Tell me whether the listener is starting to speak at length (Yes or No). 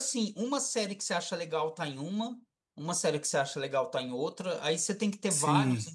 No